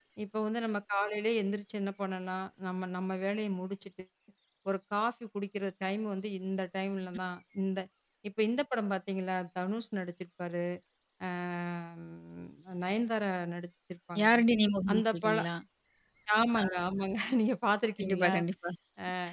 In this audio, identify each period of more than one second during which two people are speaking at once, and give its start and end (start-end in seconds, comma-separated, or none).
none